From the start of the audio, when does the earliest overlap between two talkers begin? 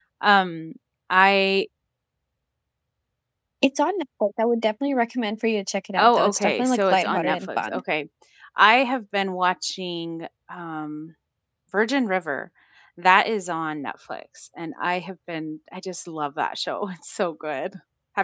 6 s

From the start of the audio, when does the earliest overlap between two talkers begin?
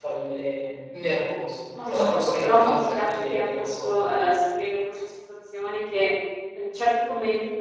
2 s

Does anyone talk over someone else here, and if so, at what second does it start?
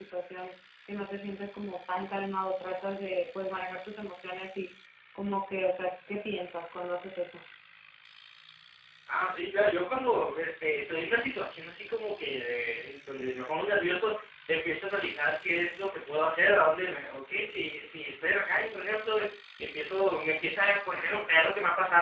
none

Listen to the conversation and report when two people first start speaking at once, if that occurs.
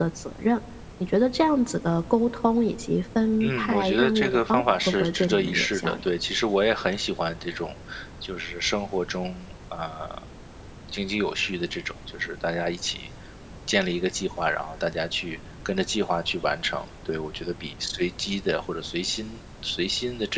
3 s

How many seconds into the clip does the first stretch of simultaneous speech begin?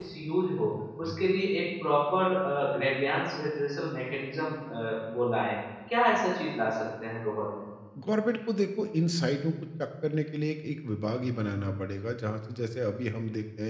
none

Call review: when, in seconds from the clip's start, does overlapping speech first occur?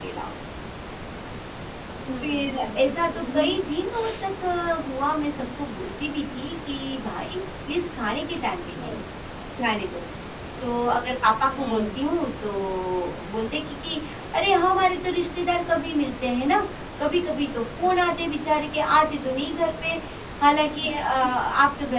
2 s

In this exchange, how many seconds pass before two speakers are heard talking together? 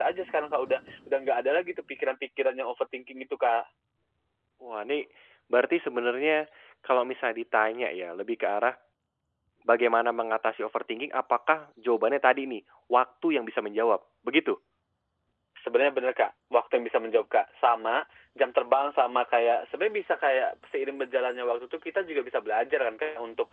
none

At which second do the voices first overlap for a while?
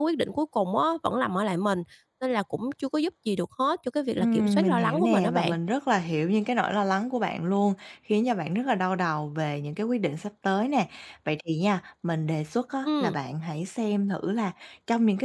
4 s

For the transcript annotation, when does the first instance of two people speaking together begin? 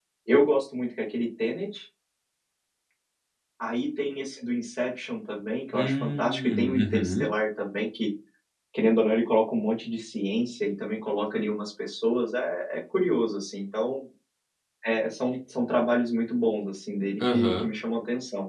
6 s

